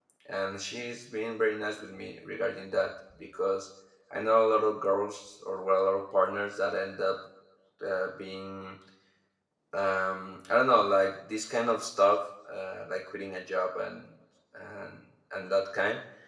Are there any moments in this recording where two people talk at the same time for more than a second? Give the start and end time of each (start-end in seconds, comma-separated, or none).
none